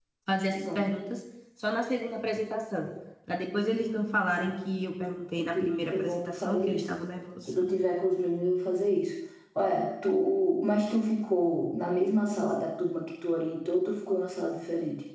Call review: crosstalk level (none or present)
present